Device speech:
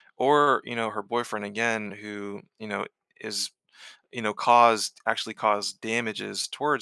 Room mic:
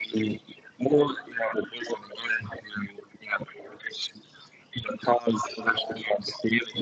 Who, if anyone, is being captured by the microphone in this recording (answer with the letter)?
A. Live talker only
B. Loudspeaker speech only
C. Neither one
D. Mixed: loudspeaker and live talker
B